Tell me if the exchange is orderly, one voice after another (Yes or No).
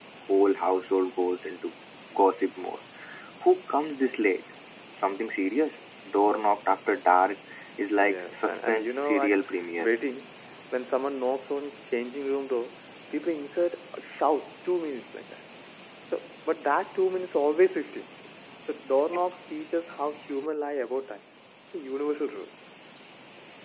No